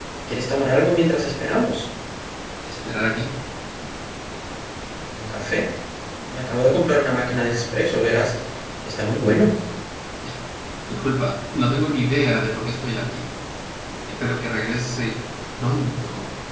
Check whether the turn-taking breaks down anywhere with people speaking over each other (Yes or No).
No